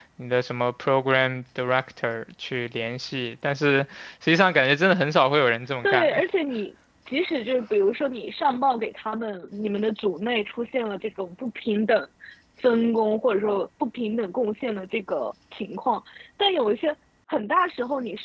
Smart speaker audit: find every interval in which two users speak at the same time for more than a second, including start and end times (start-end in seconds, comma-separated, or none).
none